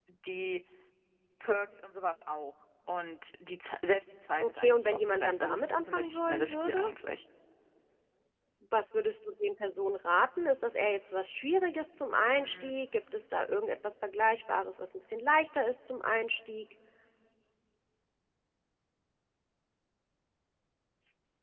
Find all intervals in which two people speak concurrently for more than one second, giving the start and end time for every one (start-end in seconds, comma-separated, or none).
4.4-6.8